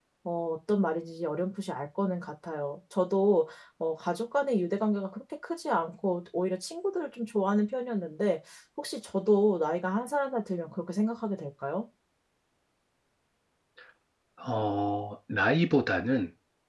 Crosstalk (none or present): none